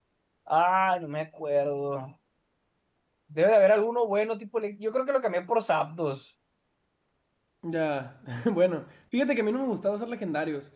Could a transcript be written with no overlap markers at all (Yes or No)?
Yes